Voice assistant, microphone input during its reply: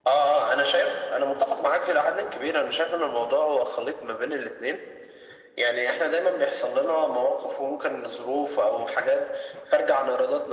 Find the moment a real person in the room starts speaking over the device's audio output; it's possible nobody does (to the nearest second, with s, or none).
none